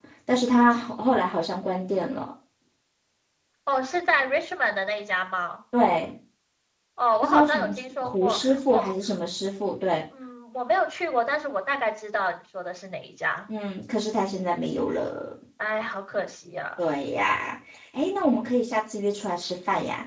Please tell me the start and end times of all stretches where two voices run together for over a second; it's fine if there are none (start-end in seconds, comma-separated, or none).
7.2-8.8